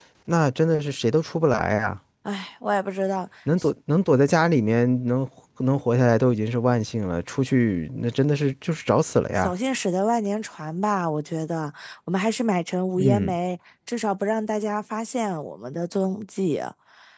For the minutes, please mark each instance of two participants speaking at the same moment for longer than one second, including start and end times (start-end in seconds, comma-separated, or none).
none